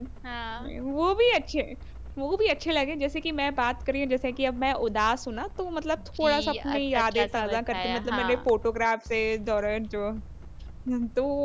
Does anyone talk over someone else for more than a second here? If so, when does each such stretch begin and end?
6.2-8.4

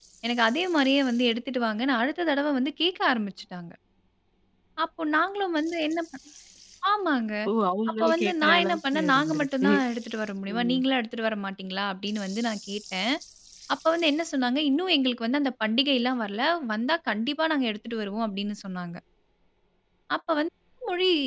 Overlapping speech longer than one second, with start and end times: 8.0-9.7

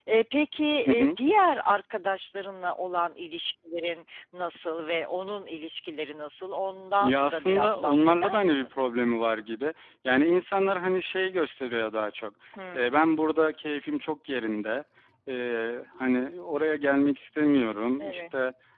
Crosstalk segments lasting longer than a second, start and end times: 7.0-8.7

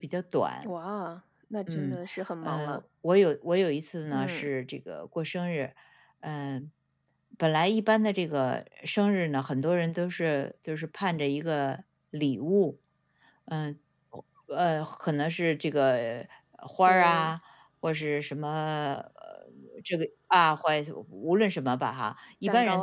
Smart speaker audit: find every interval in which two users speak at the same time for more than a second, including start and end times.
none

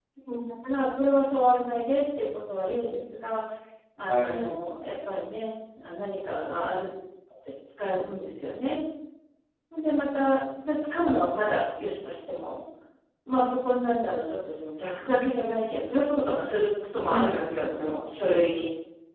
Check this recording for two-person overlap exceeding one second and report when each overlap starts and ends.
16.9-18.4

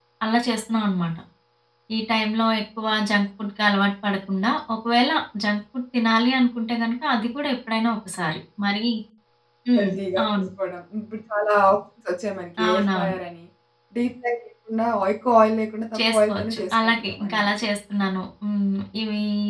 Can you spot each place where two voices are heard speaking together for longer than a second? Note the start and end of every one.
16.0-17.5

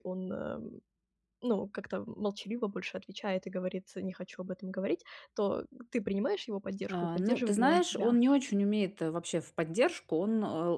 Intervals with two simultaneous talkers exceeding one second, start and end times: 6.9-8.2

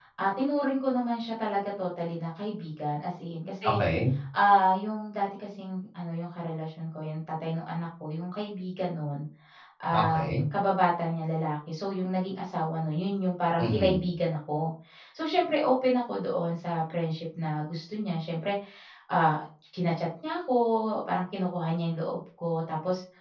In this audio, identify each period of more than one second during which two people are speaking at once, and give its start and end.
none

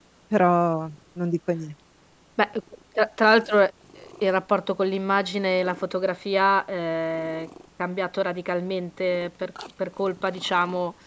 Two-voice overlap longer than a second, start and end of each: none

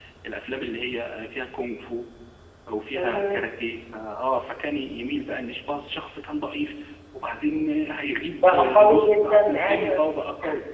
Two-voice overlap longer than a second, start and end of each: 8.4-10.0

